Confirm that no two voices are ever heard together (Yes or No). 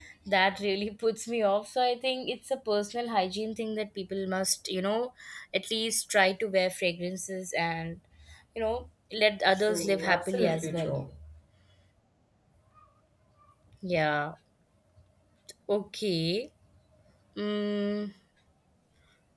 No